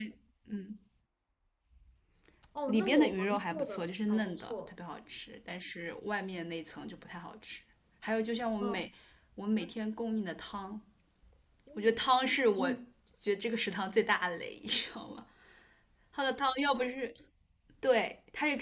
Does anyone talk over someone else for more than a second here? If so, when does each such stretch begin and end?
2.7-4.7

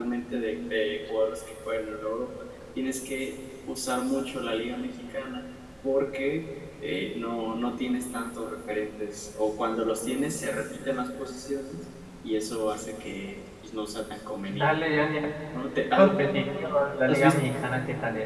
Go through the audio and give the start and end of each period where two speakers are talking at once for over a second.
none

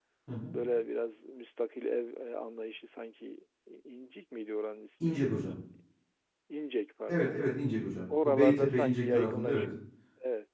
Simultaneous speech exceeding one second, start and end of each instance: 8.2-9.7

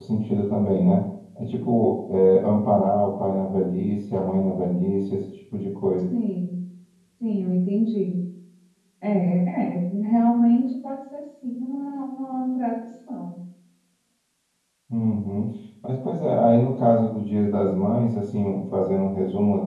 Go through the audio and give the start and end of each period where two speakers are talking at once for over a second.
none

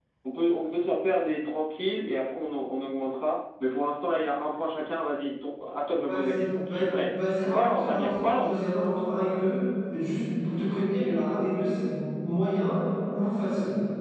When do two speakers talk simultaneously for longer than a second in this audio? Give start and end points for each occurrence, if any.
6.1-8.6

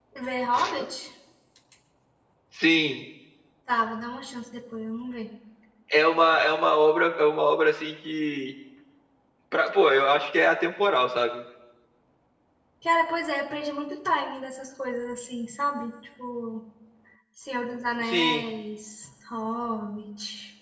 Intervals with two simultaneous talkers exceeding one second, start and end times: none

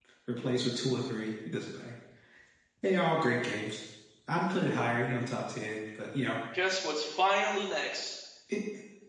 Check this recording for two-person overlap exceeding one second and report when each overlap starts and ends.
none

